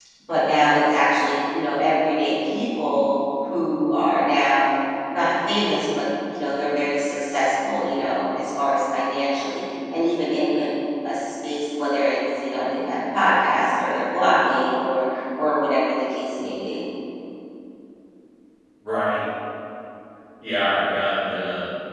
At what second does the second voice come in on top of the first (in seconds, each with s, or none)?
none